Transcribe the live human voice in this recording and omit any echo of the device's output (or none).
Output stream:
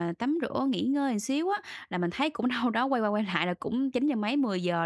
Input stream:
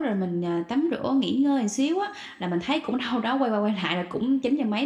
none